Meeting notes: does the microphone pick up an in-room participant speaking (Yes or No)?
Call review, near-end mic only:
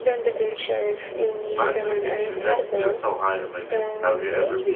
Yes